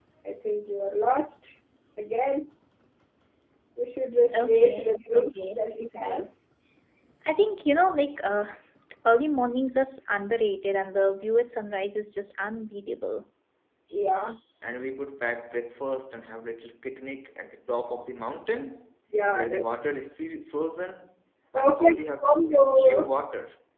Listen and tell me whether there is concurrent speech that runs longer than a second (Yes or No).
Yes